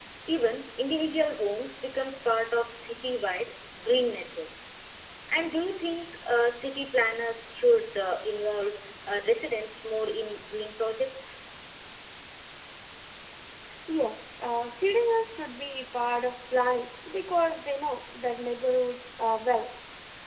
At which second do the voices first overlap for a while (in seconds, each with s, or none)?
none